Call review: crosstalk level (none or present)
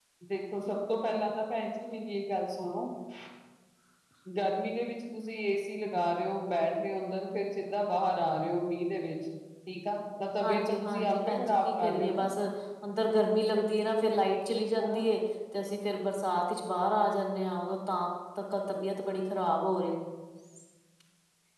present